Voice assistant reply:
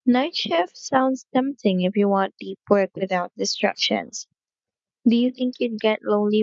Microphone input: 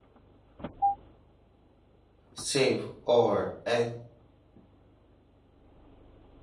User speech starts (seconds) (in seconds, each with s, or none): 2.3 s